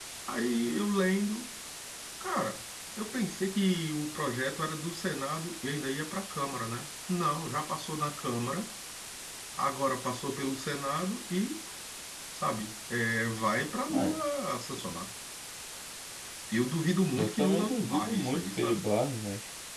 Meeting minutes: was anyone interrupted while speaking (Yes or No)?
Yes